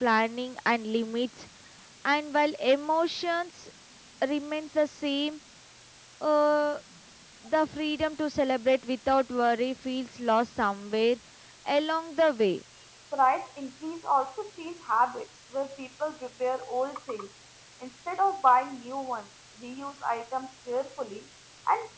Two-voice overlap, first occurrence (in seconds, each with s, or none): none